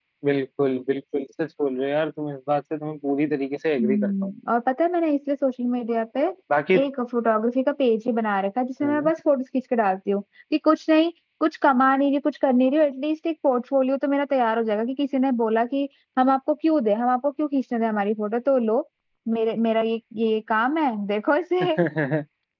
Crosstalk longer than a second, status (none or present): none